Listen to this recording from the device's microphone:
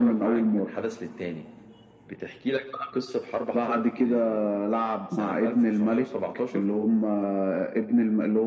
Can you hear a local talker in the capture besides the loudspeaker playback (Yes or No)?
No